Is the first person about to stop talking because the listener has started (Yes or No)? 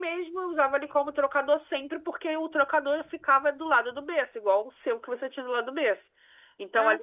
No